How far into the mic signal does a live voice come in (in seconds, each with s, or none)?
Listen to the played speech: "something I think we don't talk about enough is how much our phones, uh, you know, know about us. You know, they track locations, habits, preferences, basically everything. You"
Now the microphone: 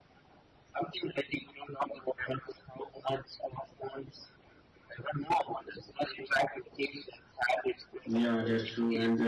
8.1 s